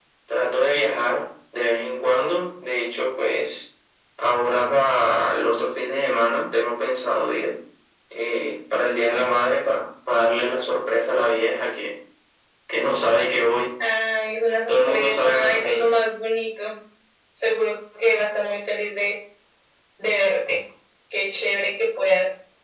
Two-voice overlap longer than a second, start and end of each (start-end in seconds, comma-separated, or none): 14.7-15.9